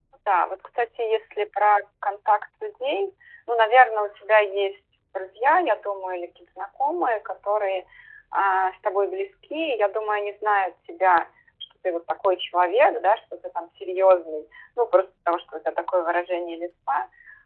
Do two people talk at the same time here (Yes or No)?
No